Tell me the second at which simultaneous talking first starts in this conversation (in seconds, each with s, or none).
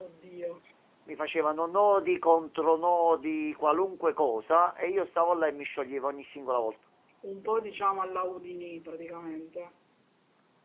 none